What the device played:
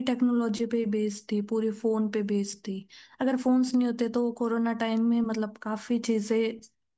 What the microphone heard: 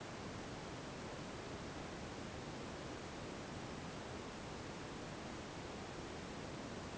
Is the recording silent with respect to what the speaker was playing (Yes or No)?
Yes